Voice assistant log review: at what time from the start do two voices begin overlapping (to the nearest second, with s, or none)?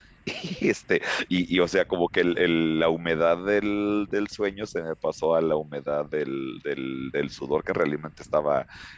none